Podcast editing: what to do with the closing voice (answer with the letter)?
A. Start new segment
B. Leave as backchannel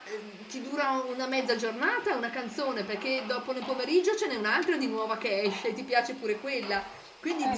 B